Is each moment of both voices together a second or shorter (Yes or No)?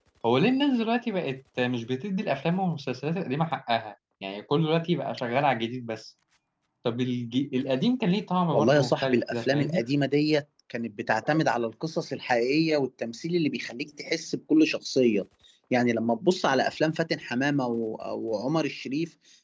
No